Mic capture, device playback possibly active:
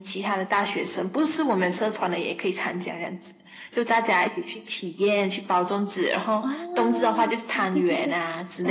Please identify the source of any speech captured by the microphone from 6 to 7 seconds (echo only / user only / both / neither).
both